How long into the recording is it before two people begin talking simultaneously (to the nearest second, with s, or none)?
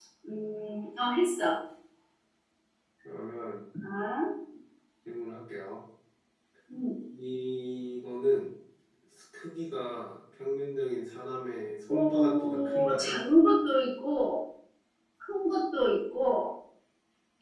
12 s